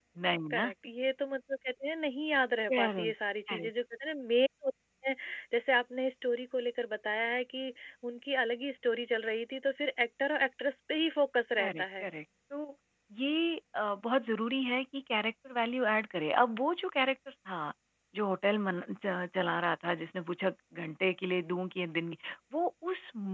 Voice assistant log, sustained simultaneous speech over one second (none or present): none